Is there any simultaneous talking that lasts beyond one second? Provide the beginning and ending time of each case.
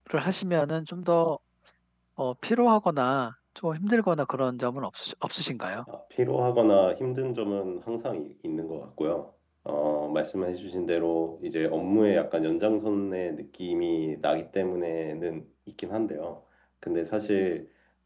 none

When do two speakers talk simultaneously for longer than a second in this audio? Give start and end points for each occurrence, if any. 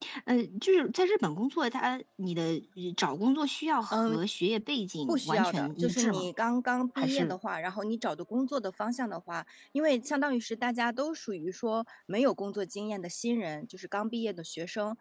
5.1-6.3

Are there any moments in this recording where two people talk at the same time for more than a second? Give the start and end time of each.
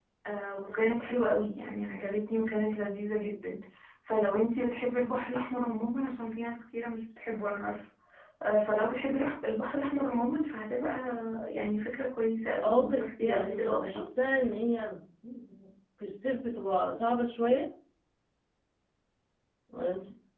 12.6-14.1

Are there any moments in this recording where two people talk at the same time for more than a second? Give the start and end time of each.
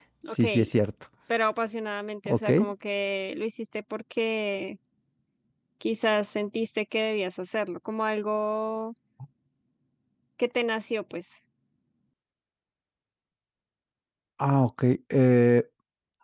none

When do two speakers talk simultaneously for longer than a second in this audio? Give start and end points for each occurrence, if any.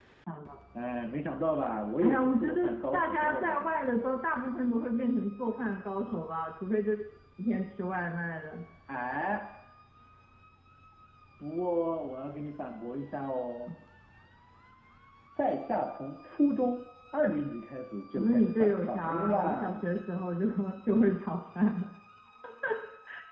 2.0-3.7, 18.1-19.9

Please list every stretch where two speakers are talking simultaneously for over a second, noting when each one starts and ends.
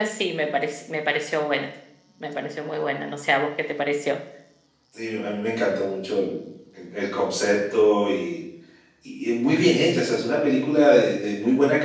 none

